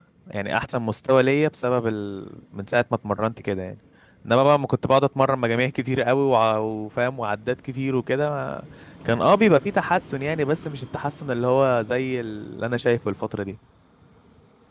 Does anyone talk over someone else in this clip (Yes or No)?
No